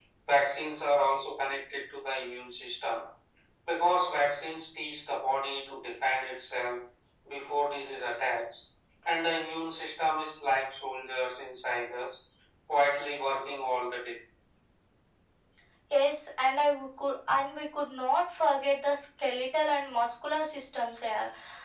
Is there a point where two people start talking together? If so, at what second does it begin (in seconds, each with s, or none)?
none